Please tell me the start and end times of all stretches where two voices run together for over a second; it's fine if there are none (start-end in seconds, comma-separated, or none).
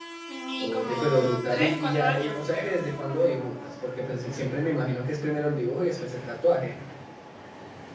0.6-2.7